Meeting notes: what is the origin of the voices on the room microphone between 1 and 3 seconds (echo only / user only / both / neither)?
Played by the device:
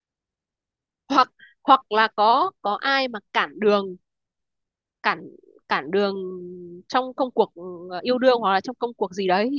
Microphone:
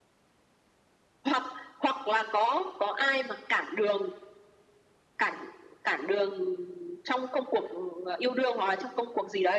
echo only